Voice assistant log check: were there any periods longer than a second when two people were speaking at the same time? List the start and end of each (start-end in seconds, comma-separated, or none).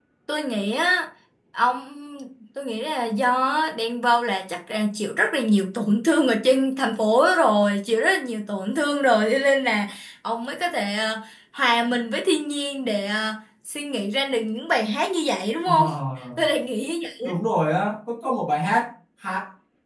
none